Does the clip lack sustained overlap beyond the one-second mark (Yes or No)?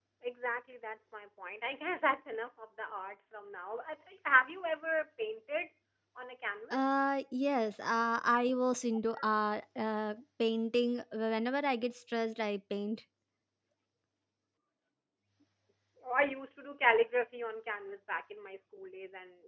Yes